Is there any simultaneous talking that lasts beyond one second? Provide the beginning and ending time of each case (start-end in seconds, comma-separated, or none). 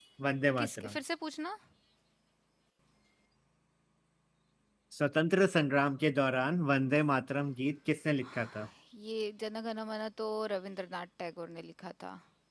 none